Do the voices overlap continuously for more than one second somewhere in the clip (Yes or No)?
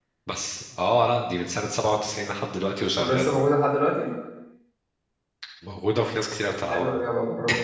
No